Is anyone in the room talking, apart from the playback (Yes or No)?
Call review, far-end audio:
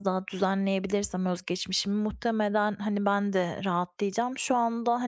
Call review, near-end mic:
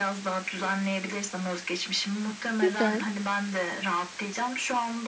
Yes